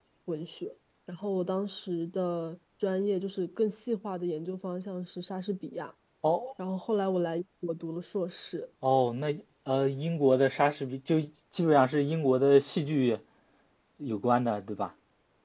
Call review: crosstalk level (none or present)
none